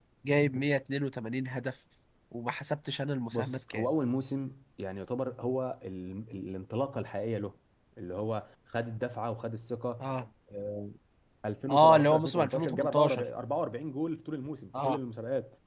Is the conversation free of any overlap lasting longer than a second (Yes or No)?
No